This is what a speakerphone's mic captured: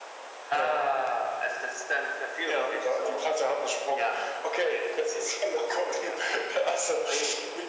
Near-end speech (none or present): none